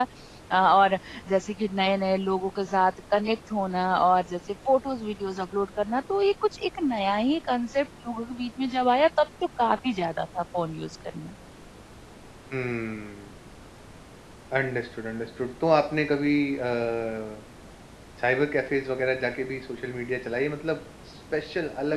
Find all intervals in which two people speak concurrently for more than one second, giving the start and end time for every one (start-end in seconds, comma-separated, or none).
none